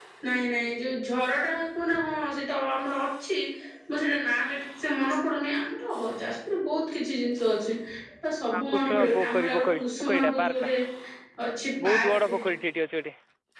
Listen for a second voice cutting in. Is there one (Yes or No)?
Yes